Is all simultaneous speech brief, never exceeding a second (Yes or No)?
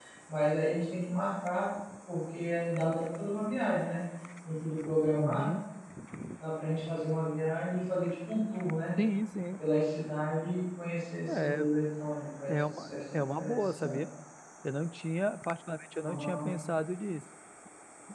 No